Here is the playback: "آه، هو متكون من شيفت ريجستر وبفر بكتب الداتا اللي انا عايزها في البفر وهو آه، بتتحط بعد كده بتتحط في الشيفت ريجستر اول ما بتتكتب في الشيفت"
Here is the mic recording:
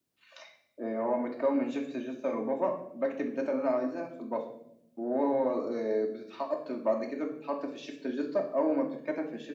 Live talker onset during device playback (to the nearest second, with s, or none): none